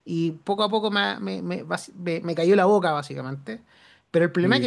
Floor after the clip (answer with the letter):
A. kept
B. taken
A